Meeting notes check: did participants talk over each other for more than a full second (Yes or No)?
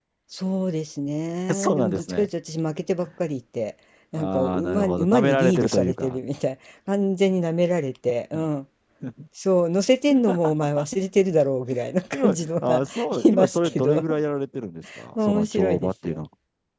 Yes